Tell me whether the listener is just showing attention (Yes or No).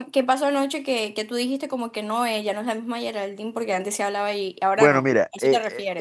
No